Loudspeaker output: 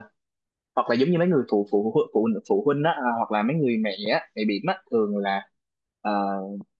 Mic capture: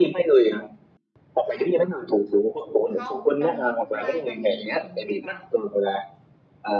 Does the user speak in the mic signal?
Yes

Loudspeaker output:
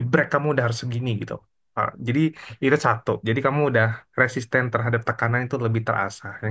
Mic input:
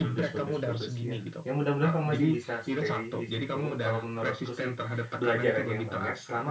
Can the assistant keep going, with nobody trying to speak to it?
No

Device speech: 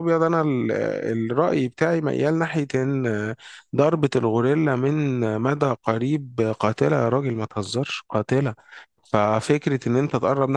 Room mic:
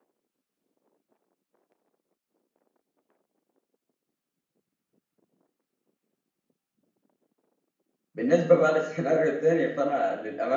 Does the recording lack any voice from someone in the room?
No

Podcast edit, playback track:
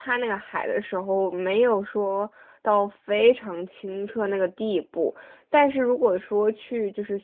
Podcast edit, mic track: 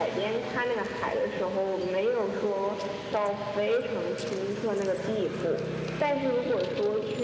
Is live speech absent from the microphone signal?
Yes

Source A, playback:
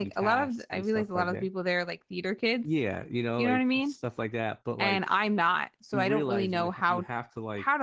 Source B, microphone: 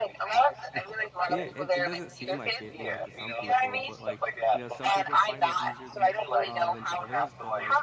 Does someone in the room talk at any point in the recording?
Yes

